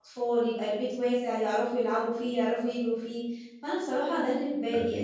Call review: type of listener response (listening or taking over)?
listening